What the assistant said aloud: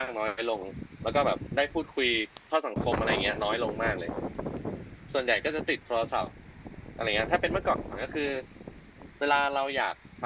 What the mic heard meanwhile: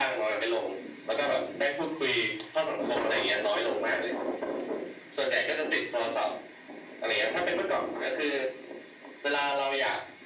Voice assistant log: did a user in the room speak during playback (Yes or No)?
No